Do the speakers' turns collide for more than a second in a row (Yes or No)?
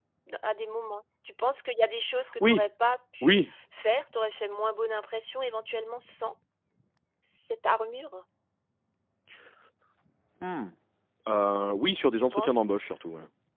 No